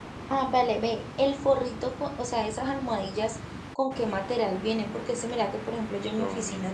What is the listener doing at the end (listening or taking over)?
listening